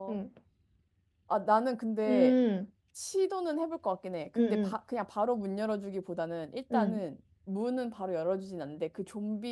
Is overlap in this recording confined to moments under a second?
Yes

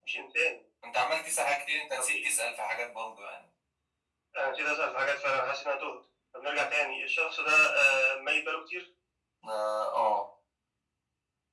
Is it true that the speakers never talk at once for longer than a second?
Yes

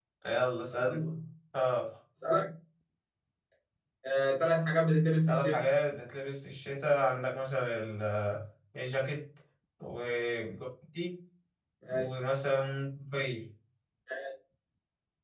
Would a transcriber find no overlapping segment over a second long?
Yes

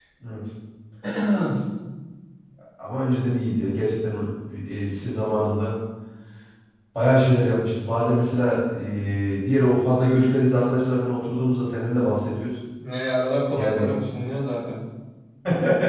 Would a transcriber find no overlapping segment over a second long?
Yes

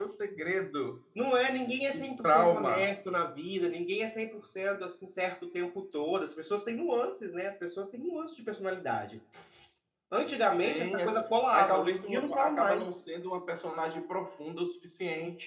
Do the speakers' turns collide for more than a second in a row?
Yes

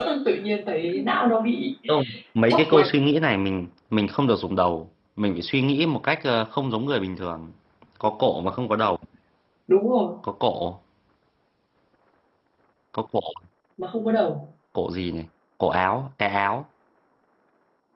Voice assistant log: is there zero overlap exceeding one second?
Yes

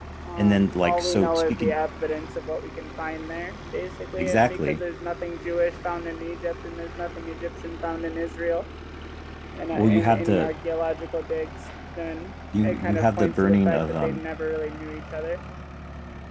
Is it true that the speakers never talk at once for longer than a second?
No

